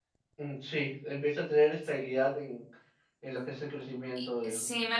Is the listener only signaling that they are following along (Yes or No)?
No